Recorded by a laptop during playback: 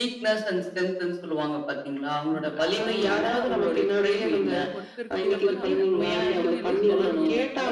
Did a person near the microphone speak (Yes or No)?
Yes